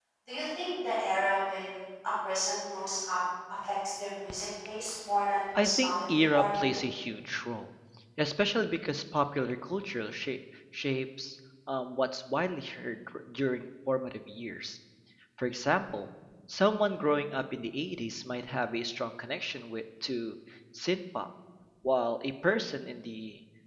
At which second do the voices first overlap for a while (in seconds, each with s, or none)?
5.5 s